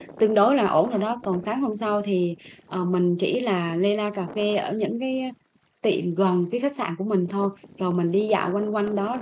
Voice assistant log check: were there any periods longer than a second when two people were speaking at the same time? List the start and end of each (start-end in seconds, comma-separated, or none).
none